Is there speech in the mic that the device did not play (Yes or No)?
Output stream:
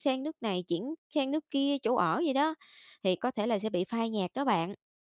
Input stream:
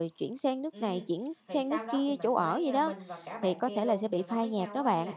Yes